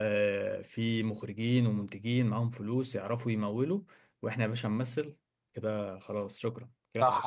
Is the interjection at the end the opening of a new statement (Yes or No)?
Yes